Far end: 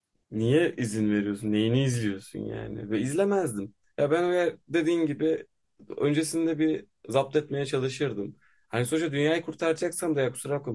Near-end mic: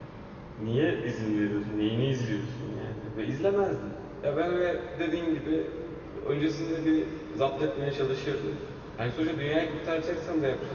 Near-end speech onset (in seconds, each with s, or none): none